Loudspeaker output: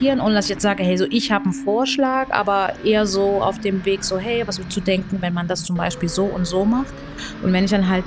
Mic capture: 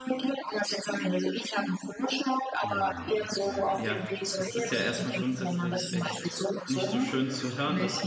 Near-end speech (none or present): present